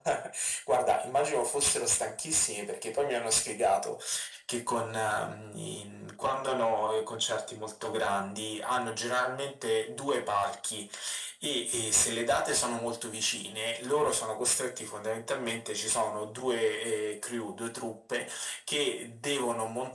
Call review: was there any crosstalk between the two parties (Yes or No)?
No